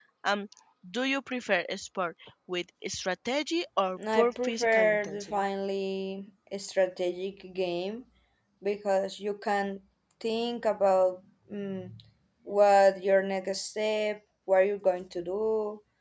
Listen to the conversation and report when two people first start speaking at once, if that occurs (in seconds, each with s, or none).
4.0 s